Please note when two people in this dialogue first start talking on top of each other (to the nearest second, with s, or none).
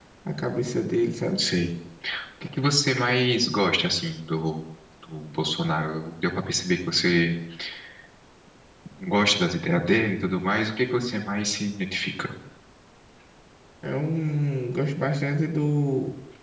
none